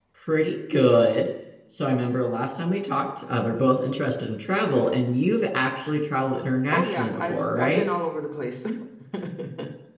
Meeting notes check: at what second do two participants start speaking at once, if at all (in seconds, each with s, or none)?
6.7 s